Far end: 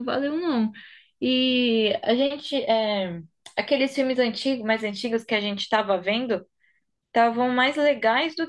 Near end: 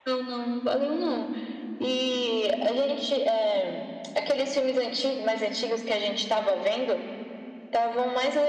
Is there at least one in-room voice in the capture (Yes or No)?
No